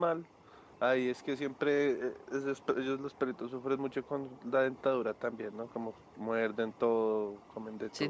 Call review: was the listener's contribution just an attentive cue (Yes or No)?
No